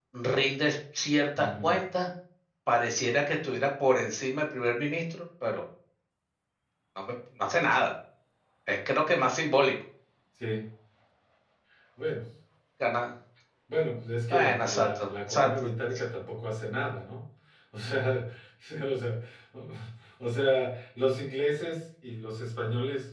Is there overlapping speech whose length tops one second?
Yes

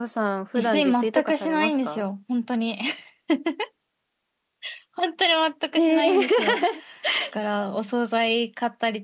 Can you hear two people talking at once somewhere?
Yes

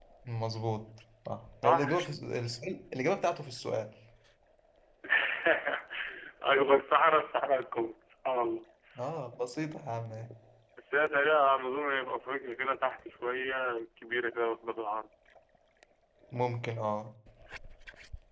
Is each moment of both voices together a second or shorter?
Yes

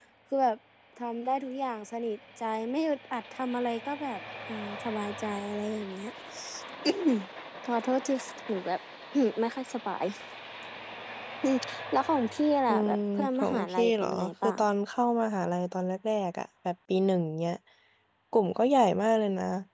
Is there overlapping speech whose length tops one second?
Yes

